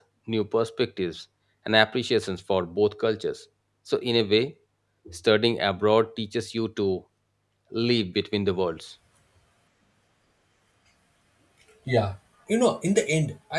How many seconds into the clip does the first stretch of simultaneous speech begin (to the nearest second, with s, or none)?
none